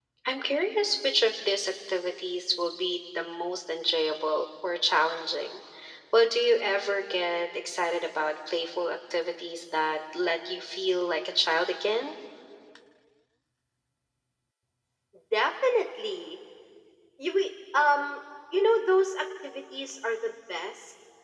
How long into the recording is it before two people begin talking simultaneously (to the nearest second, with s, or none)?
none